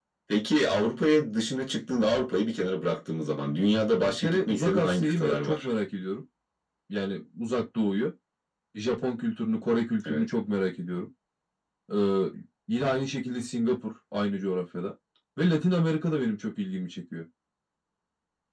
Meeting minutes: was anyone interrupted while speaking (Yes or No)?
Yes